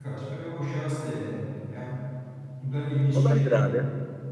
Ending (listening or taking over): taking over